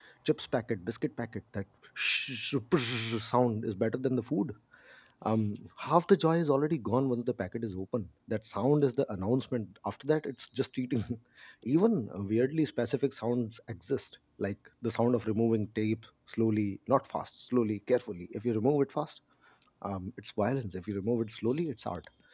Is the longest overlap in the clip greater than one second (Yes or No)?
No